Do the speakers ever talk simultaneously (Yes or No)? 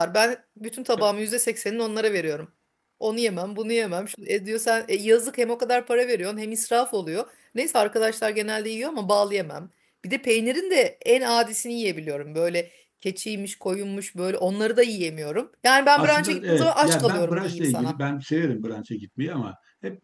Yes